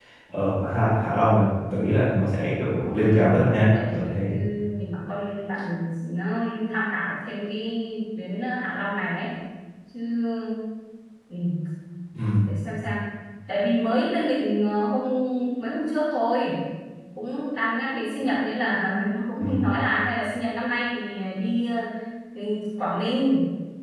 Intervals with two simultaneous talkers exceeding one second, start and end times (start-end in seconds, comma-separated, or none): 2.9-4.3